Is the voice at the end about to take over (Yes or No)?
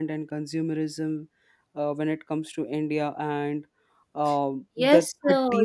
Yes